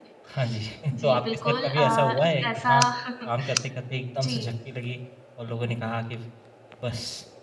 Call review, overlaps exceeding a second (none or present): present